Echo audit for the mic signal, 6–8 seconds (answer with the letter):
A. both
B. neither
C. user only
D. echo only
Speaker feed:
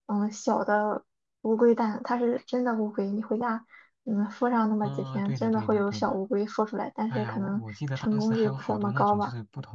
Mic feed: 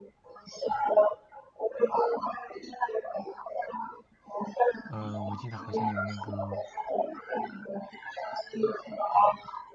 A